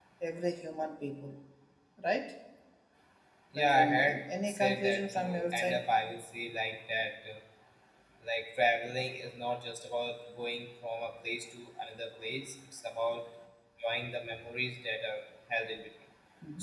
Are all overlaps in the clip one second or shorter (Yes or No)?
No